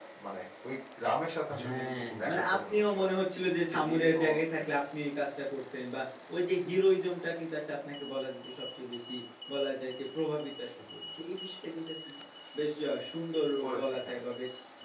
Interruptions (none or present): present